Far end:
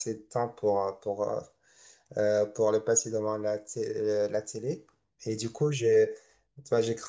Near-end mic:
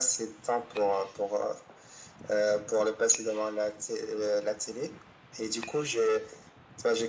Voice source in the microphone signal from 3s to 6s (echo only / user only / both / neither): echo only